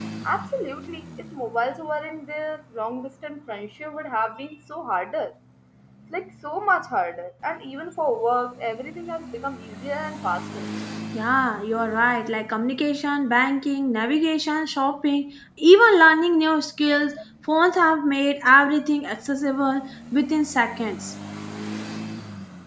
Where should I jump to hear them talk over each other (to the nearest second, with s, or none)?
none